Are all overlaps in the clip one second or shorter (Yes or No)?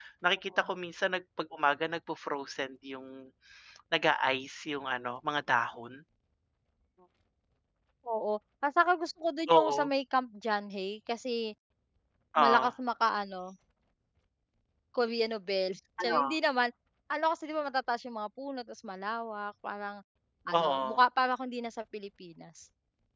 Yes